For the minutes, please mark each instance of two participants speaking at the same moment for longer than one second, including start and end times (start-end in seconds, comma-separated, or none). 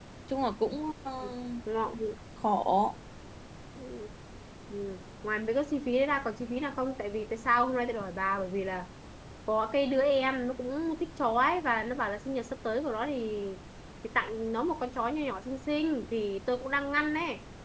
none